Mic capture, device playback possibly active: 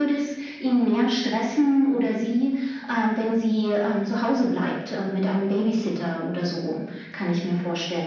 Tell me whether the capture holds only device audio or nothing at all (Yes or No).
Yes